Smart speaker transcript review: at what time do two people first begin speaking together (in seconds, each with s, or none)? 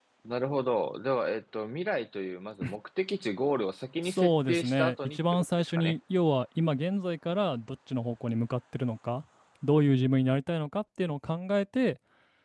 4.0 s